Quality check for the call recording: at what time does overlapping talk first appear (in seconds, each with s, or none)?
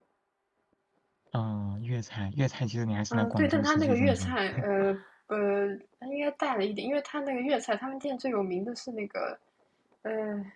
3.1 s